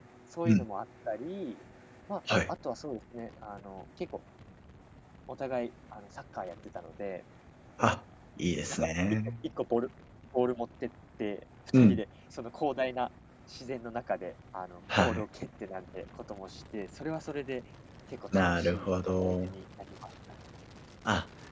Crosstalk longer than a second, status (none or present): present